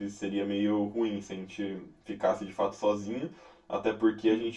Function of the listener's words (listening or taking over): listening